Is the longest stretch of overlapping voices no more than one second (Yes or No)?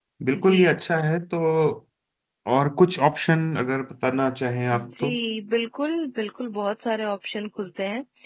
Yes